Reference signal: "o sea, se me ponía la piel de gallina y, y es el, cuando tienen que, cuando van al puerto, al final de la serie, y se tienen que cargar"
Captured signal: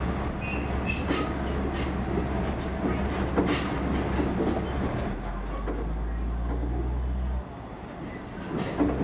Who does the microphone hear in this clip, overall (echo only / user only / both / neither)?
neither